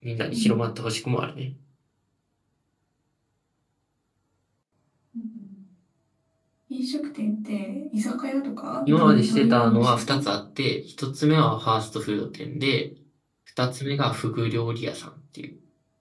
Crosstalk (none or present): present